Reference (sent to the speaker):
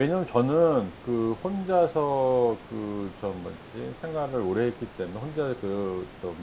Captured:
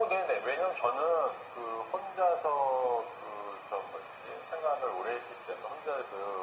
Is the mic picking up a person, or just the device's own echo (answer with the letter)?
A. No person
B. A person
A